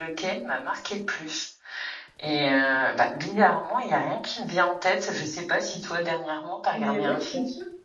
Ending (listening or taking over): taking over